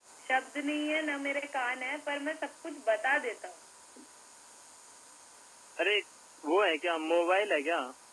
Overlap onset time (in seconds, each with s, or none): none